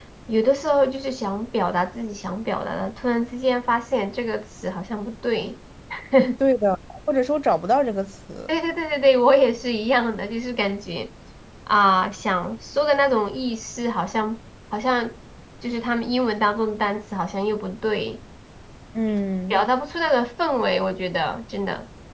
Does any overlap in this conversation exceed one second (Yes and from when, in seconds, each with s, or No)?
No